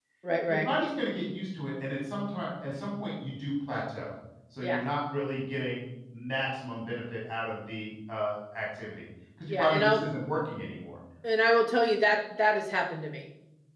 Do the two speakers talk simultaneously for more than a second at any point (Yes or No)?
No